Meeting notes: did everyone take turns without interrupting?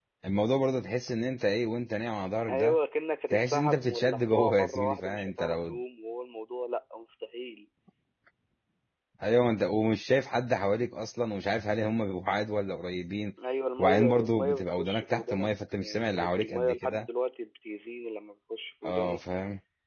No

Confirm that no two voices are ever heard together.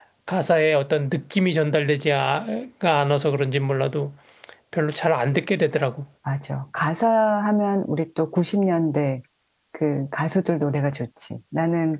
Yes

